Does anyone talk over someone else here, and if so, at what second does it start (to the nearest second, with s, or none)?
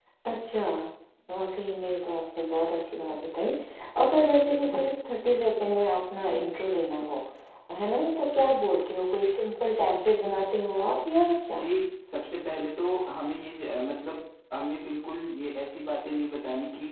none